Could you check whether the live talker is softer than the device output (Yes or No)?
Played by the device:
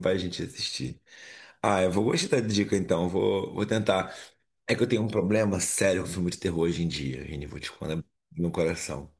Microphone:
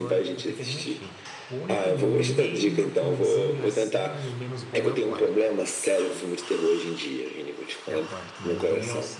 Yes